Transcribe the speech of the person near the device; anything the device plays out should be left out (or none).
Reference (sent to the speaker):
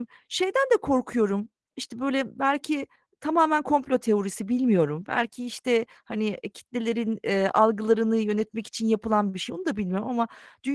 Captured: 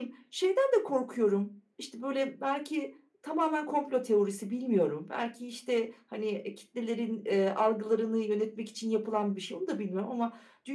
none